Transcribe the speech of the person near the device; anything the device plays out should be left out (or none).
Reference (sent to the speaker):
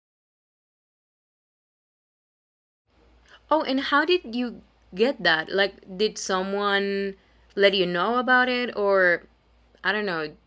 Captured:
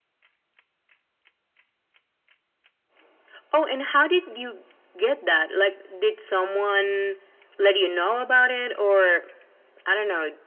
none